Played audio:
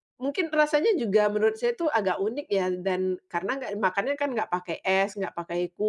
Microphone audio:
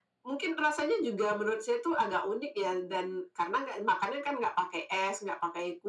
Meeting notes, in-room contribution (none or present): none